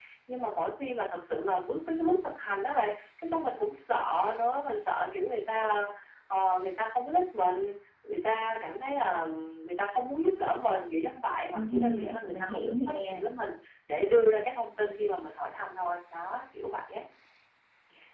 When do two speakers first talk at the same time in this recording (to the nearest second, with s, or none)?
12 s